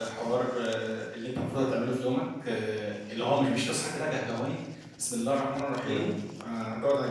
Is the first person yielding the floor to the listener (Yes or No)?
No